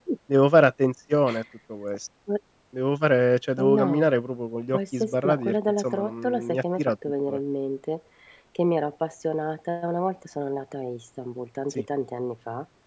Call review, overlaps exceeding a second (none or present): present